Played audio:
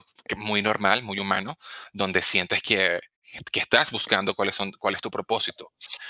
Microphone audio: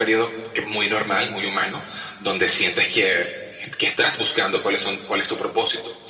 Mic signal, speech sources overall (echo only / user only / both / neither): echo only